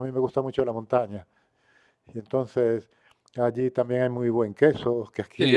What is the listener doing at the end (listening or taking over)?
taking over